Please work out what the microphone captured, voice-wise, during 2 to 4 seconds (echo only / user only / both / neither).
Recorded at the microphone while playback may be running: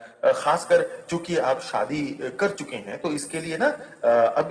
echo only